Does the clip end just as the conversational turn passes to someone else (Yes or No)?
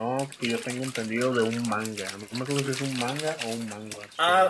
Yes